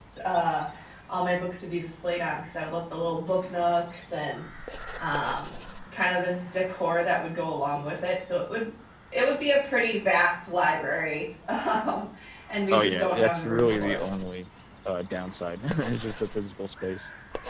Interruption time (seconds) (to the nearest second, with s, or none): 13 s